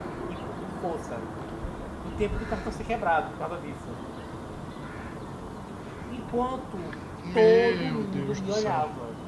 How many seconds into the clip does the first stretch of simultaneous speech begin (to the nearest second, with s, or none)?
7 s